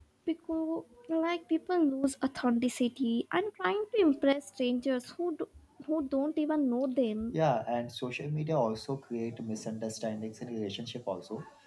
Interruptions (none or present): none